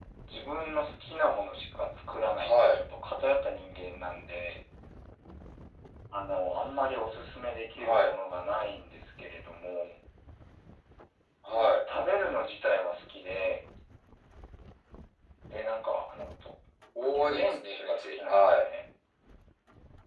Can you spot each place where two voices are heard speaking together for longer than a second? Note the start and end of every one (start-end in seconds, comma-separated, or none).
17.0-18.6